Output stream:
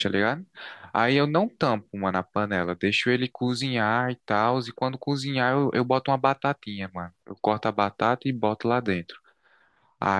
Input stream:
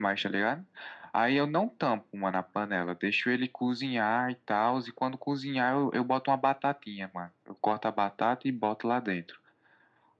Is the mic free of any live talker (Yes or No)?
Yes